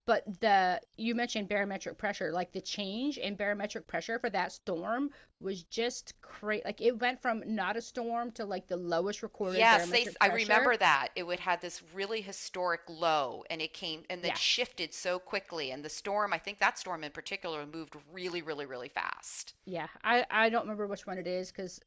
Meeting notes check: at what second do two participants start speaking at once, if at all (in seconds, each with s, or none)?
9.5 s